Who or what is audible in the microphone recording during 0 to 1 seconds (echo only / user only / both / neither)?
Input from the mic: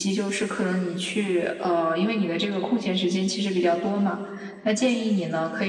echo only